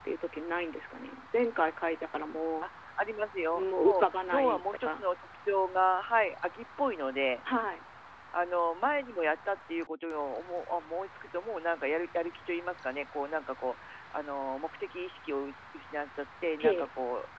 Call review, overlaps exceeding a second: present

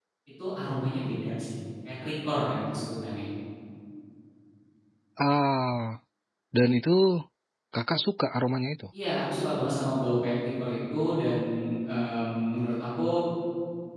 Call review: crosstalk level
none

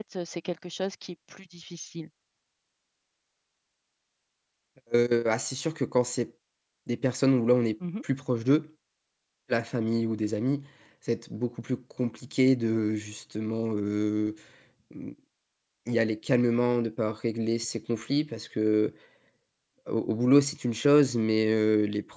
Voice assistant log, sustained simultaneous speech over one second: none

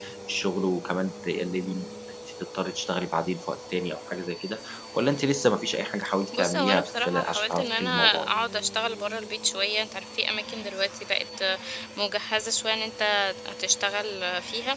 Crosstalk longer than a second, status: present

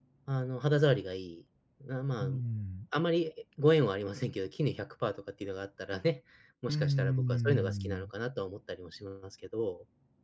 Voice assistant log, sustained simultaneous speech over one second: present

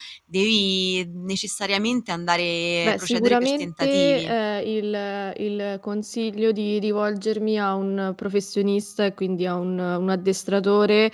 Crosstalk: present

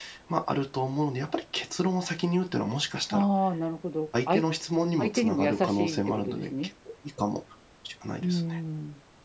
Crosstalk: present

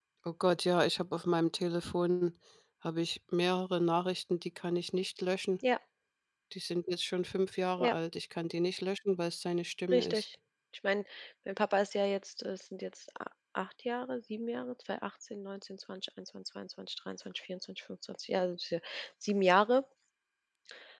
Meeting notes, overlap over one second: none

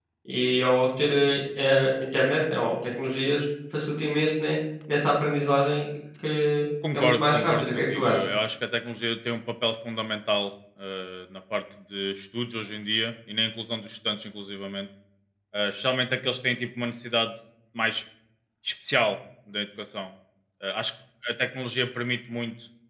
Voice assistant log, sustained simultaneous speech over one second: present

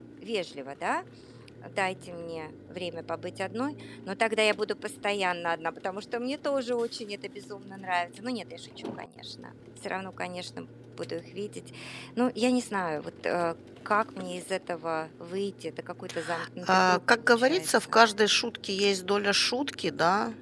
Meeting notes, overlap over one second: present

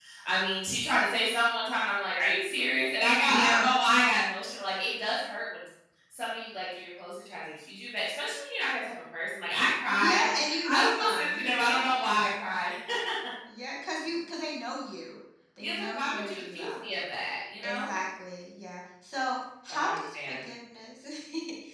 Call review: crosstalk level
present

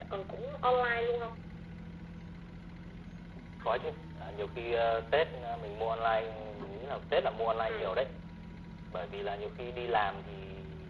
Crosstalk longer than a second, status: none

